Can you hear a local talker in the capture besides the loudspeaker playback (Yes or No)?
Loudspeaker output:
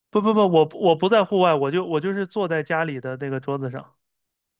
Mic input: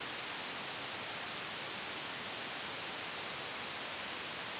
No